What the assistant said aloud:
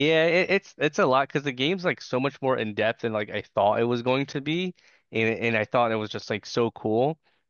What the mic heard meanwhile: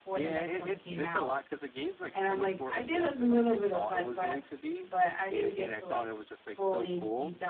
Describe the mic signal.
both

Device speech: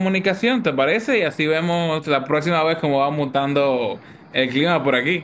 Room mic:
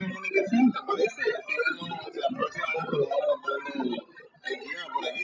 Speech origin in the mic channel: echo only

